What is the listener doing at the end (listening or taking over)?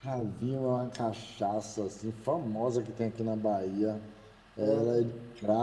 listening